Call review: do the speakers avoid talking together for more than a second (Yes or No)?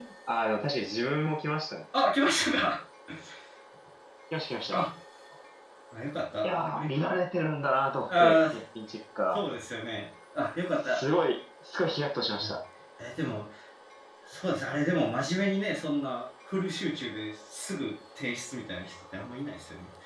Yes